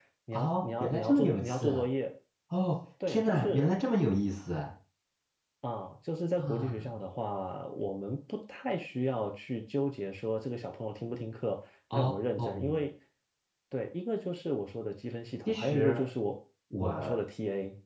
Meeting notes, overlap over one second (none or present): present